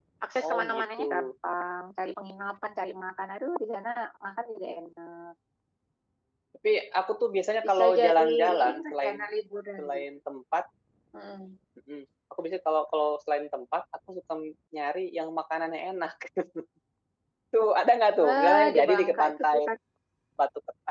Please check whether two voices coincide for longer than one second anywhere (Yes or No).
Yes